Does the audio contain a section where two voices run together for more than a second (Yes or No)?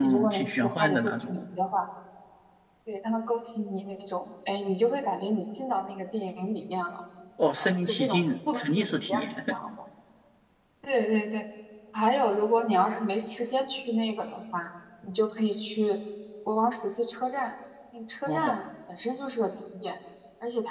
Yes